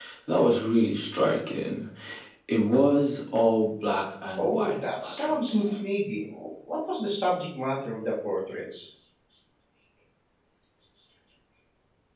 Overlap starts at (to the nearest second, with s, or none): 4 s